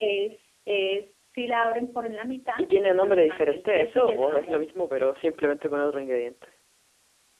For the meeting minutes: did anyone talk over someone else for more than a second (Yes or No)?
Yes